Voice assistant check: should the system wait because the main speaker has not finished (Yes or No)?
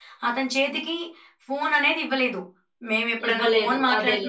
Yes